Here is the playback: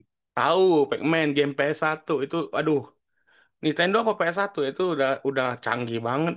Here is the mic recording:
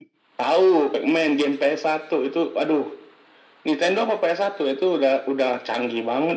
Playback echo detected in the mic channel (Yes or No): Yes